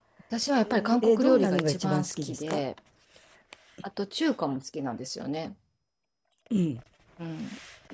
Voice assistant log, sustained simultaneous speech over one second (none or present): present